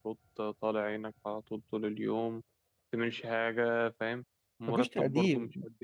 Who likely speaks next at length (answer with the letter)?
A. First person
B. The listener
A